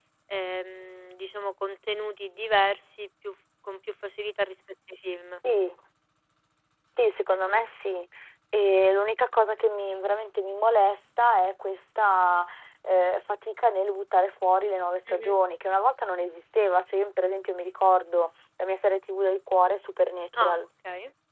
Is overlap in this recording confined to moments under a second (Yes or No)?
Yes